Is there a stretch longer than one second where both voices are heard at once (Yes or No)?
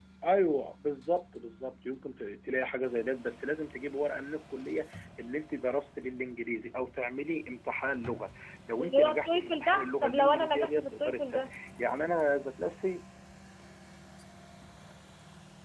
Yes